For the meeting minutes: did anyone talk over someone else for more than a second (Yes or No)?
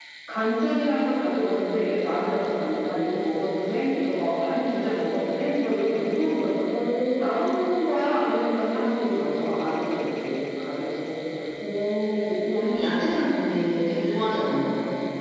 No